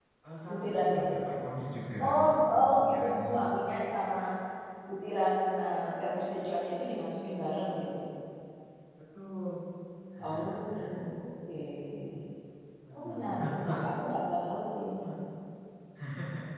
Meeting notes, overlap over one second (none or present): present